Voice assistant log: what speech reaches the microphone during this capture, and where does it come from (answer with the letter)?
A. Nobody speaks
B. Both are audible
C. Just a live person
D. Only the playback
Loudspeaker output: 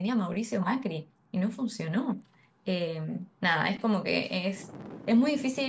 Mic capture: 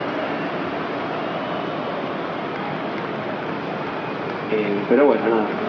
C